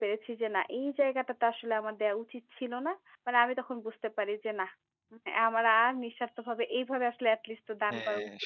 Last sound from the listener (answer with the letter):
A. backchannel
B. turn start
B